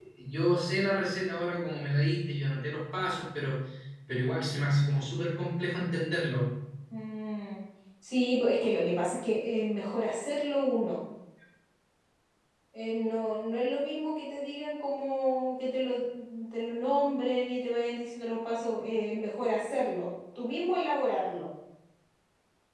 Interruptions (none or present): none